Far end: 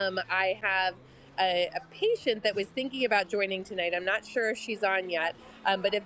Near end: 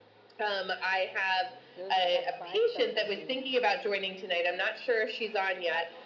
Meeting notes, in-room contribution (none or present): present